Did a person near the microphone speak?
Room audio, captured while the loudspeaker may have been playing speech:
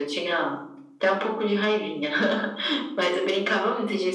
No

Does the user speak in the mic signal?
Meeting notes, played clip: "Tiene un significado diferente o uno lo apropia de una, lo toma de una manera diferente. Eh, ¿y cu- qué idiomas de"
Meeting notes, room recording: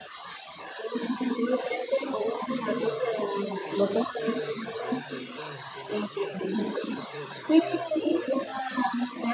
Yes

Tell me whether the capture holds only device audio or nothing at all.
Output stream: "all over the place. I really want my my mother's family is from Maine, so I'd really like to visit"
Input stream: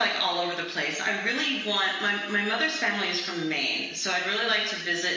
Yes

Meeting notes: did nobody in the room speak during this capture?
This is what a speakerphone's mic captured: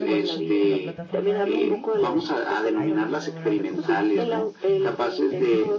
No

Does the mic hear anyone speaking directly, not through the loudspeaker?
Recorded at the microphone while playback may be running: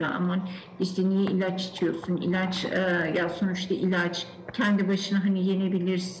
No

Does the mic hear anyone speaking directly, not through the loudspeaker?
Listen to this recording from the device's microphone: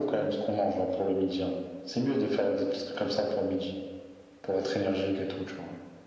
No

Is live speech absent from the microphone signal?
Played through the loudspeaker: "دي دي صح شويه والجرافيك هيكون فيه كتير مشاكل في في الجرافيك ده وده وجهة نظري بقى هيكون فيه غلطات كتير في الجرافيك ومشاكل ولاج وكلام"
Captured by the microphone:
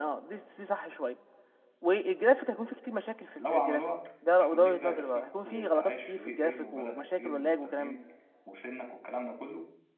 No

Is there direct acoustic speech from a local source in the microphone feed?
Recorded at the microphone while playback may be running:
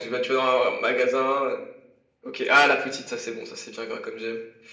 No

